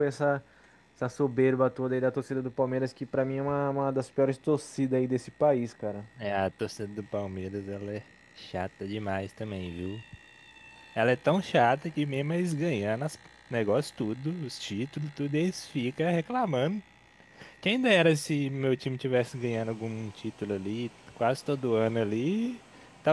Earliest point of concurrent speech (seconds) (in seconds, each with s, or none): none